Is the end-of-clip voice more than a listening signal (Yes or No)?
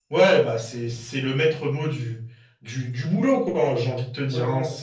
Yes